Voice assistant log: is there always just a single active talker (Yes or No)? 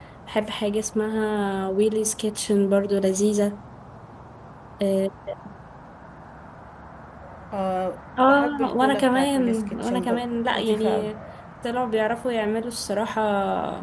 No